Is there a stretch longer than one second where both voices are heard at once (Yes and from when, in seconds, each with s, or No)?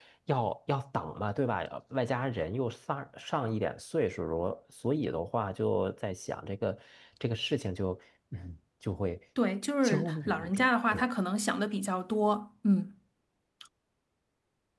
Yes, from 9.8 s